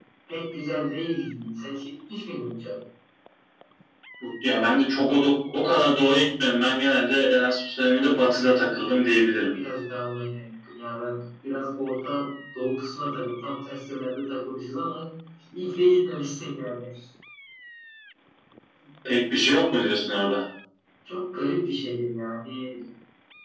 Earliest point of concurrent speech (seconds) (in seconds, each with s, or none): none